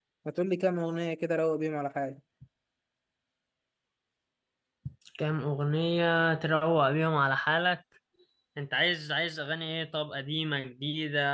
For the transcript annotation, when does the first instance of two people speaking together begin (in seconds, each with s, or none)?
none